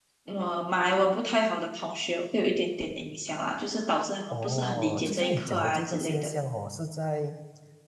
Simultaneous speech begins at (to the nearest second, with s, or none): 4 s